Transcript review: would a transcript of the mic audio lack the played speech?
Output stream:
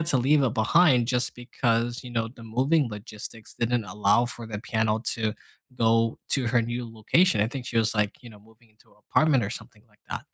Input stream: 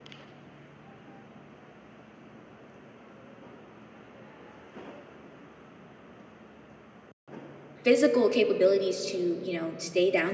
Yes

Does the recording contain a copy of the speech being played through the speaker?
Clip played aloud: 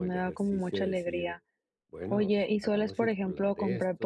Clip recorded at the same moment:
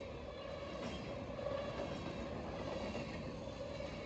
No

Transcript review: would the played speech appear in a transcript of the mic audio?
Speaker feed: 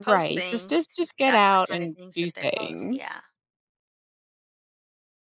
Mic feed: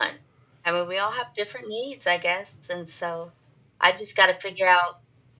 No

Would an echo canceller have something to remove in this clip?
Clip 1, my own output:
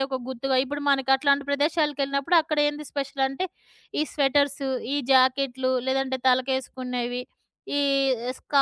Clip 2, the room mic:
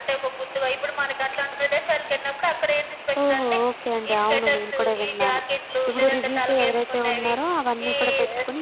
Yes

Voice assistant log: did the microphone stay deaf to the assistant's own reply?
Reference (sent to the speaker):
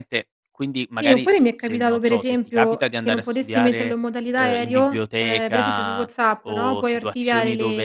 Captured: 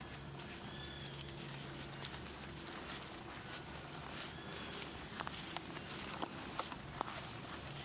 Yes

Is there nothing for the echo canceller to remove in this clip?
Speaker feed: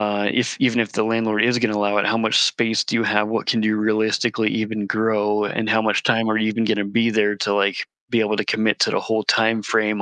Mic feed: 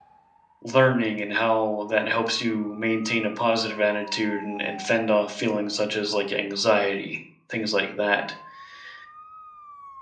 Yes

